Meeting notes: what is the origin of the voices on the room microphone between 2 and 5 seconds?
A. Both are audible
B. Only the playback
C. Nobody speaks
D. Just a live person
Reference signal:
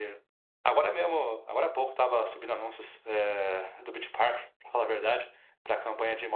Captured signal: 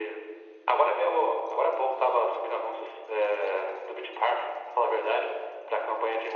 B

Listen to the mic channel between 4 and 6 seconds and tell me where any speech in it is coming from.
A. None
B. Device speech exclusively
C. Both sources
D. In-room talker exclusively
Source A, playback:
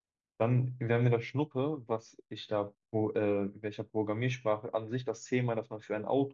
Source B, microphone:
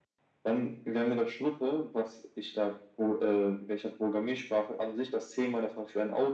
B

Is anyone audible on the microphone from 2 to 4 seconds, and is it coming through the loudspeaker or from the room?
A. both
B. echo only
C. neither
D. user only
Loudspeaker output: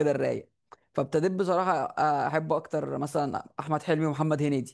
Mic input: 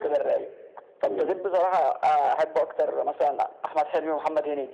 B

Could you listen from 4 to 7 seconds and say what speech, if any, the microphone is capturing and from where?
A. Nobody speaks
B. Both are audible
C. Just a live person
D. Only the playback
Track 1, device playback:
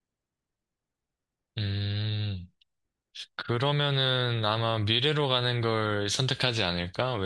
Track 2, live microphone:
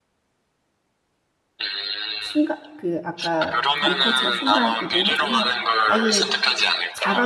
B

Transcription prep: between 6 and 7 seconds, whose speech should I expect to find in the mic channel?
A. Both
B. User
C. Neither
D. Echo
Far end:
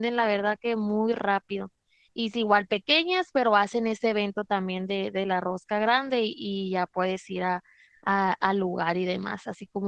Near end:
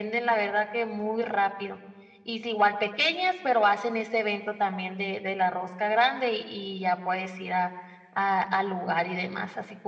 D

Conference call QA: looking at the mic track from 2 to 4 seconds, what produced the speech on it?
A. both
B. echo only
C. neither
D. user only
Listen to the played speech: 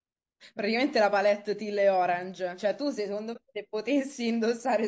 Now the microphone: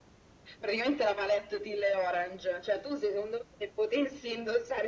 B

